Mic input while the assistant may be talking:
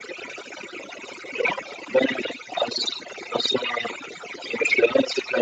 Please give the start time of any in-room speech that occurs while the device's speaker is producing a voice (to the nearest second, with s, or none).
none